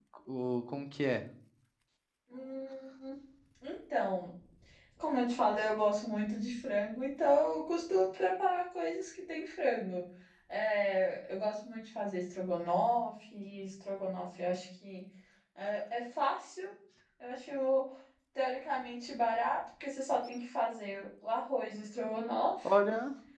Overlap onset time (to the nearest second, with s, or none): none